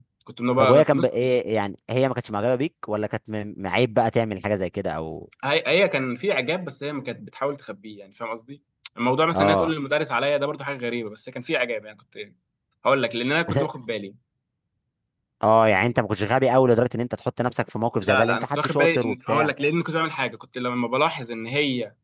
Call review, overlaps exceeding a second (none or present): present